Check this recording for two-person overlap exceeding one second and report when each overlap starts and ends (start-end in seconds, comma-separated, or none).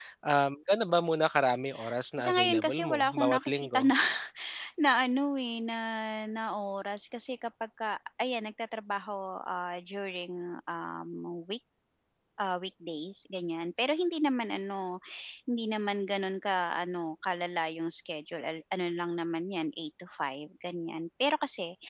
2.2-3.9